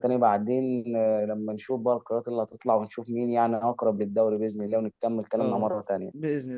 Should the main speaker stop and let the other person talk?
Yes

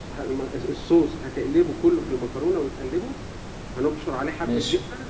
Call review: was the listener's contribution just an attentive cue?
Yes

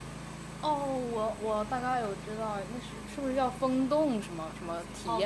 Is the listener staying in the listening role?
No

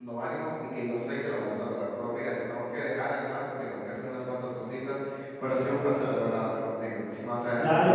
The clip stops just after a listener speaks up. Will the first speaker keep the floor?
No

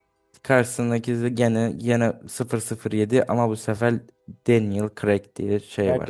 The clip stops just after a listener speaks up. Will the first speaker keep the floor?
No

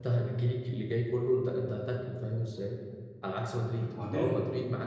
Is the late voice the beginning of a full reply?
No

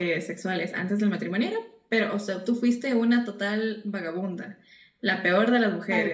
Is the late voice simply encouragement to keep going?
Yes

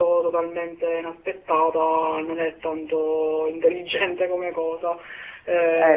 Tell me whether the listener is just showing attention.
Yes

